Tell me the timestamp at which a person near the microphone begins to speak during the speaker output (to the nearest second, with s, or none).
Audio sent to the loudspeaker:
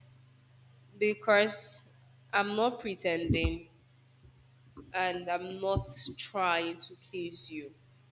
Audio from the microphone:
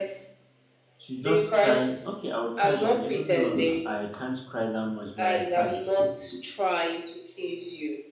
1 s